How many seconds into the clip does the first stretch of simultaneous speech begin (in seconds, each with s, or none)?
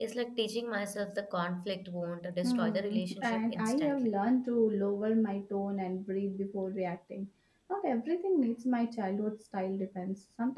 2.4 s